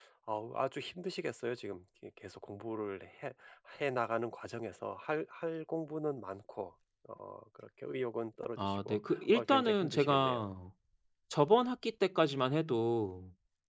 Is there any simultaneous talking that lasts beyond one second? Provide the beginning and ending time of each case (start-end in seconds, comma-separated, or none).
8.6-10.4